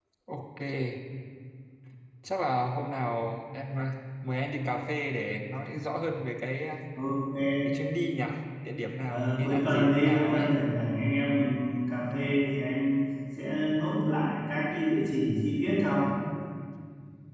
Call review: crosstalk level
present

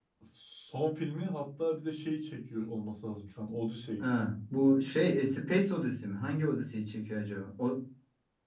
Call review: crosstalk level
none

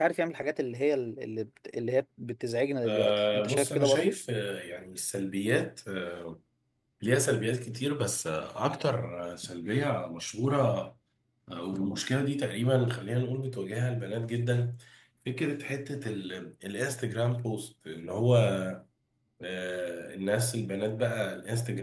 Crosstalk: present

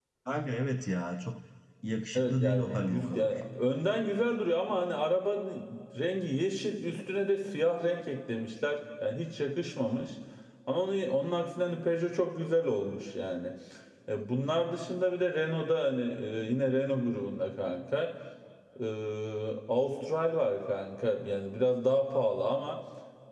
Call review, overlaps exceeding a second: present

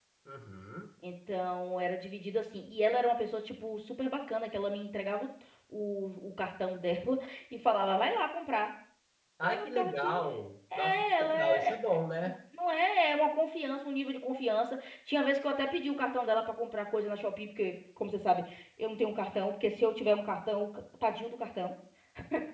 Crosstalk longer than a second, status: present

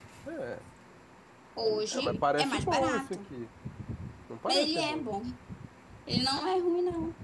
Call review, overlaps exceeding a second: present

